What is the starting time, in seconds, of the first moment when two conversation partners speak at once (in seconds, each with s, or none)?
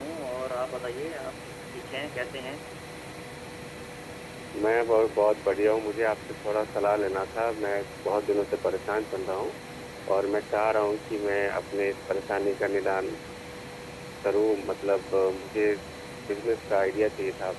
none